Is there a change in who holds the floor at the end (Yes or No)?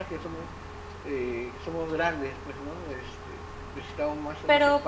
Yes